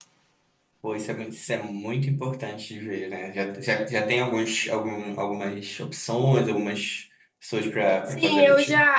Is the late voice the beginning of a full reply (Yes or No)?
Yes